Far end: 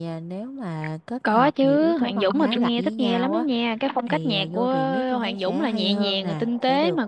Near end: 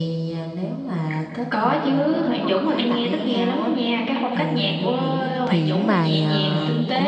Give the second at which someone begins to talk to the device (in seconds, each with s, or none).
5.4 s